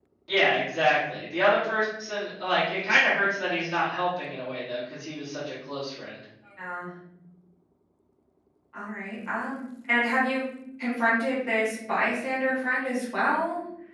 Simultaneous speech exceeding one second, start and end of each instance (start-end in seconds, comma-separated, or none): none